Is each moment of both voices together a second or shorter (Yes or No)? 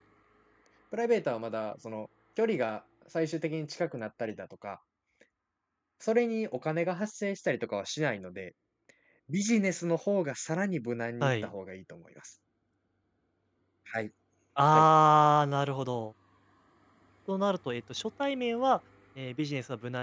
Yes